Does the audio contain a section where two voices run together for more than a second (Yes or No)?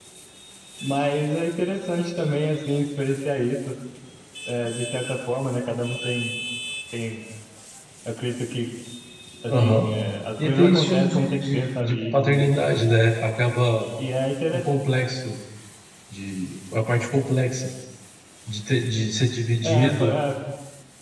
Yes